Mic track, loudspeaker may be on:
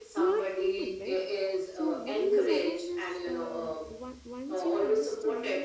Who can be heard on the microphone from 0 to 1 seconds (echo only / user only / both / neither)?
both